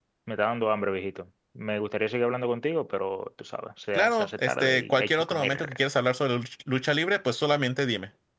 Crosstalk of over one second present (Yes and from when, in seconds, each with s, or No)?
Yes, from 3.9 s